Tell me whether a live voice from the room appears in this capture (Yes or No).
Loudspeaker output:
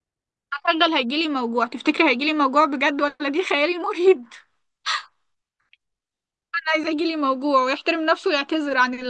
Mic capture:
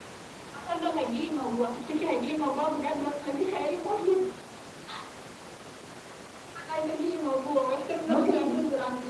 Yes